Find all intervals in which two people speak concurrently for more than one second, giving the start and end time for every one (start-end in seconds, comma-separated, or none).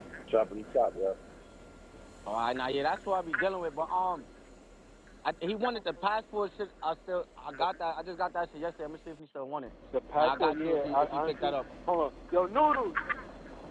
10.2-11.6